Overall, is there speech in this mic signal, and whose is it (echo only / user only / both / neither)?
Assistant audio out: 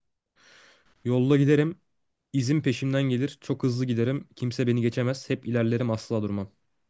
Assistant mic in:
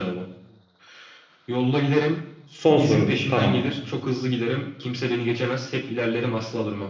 both